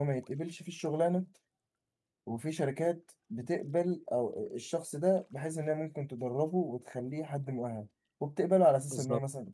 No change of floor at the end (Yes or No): Yes